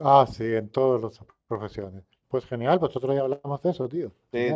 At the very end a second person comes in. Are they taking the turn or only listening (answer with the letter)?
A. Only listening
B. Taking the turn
B